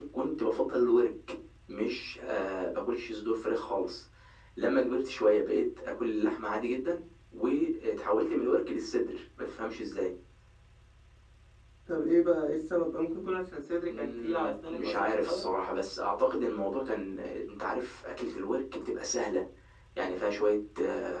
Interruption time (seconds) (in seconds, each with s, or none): 13.9 s